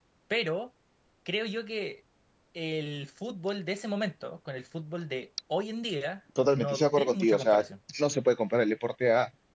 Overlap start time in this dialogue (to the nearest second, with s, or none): 6 s